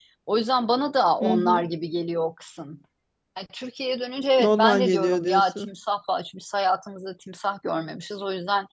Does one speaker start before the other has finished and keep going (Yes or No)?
Yes